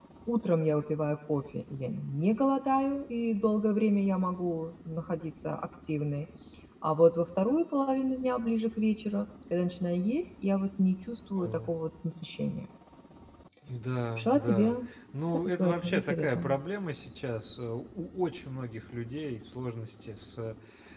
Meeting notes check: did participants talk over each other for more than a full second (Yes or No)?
Yes